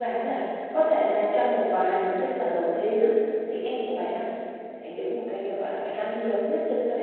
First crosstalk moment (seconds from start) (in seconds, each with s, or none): none